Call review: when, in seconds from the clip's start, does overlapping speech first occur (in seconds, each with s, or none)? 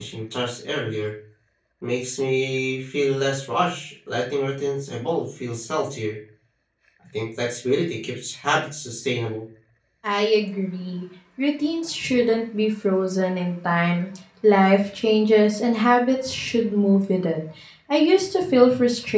none